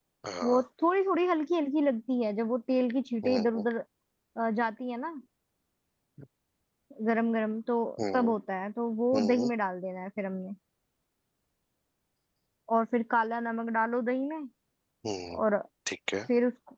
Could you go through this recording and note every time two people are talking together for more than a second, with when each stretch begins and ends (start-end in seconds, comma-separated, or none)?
none